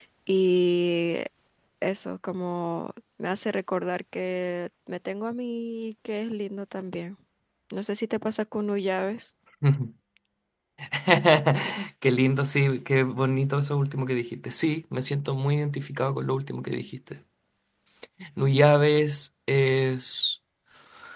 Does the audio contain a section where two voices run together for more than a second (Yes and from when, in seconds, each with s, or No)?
No